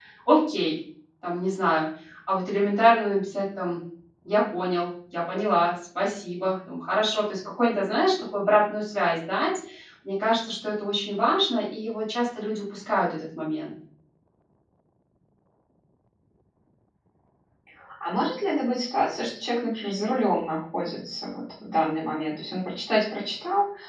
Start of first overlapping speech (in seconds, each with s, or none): none